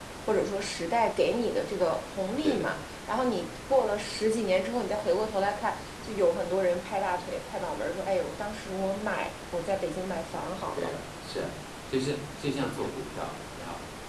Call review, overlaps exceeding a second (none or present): none